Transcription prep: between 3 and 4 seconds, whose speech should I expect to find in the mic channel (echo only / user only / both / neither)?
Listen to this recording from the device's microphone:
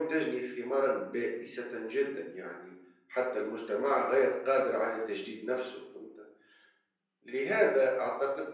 echo only